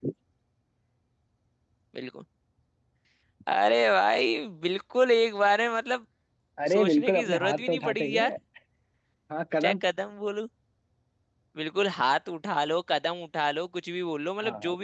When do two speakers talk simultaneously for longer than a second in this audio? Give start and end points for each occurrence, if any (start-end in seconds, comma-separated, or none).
6.7-8.2